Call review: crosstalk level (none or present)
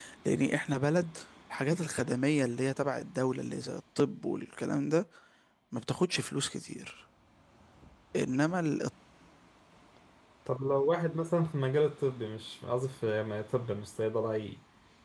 none